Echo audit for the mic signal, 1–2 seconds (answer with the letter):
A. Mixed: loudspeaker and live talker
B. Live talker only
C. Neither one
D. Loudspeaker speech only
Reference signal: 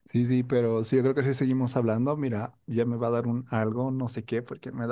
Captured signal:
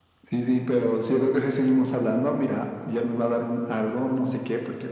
D